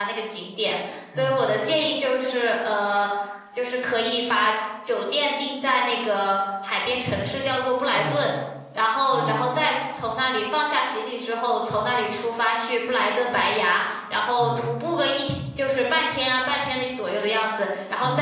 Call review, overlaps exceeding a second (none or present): none